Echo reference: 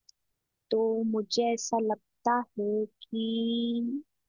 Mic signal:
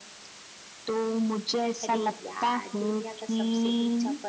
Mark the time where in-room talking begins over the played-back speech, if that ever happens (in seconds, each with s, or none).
1.8 s